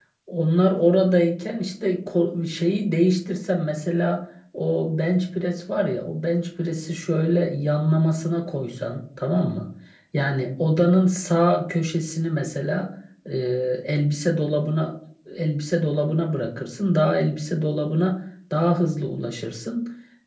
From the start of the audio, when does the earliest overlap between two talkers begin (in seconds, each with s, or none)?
none